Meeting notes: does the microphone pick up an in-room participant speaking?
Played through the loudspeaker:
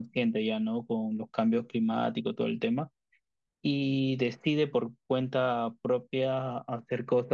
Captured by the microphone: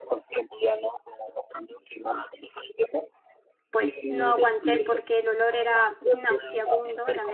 Yes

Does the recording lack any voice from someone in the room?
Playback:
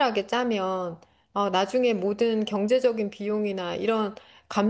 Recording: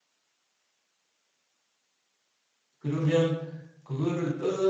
No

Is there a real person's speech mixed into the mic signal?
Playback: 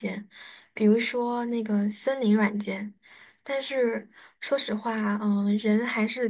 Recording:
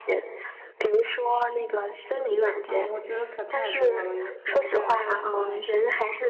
Yes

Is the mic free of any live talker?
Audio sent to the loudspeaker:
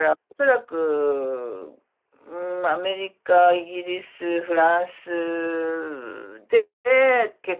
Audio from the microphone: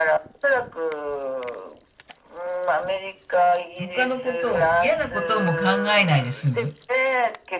No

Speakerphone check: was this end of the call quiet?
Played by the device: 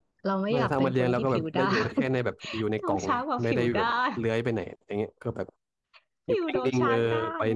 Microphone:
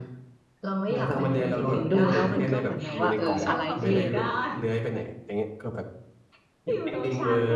No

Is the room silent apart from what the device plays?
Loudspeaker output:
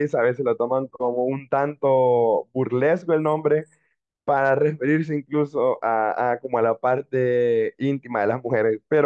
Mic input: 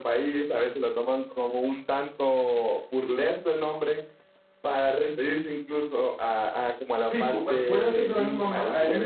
No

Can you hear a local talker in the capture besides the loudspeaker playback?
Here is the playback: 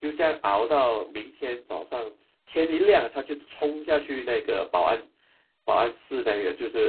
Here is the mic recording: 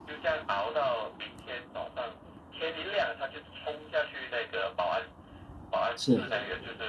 Yes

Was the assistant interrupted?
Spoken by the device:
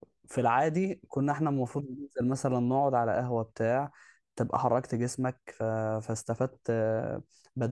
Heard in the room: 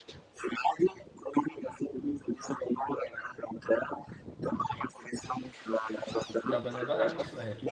Yes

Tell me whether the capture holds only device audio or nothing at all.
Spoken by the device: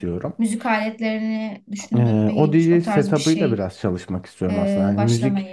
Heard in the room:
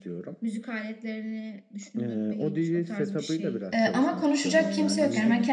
No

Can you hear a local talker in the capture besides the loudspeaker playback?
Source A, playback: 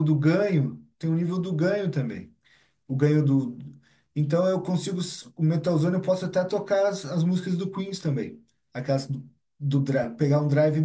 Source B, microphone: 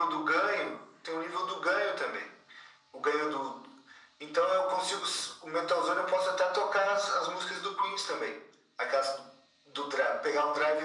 No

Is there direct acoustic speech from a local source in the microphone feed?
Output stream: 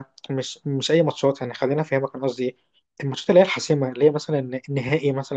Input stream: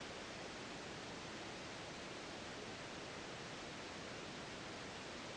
No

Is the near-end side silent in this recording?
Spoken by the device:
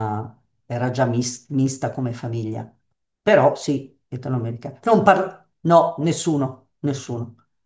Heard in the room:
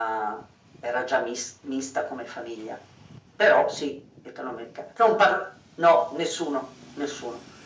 Yes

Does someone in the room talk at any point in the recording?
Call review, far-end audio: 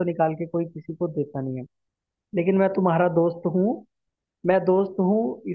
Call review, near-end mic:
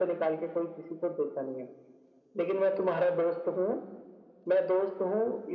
No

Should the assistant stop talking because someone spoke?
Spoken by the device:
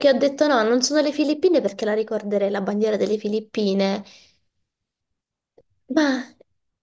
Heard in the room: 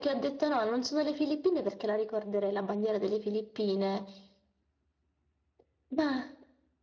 No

